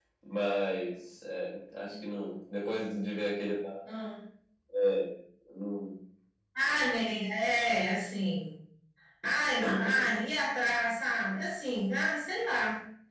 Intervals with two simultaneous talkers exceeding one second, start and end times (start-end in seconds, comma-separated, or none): none